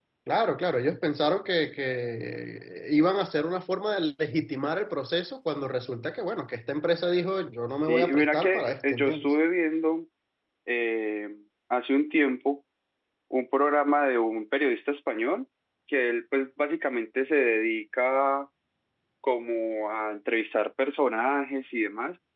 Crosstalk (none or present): present